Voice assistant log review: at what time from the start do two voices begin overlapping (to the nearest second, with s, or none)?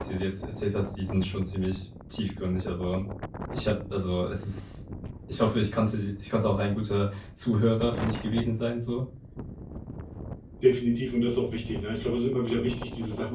none